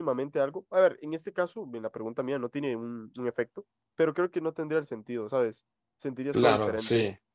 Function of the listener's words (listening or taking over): taking over